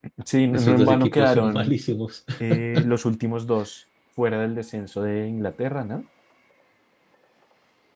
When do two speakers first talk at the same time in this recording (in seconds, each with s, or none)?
0.5 s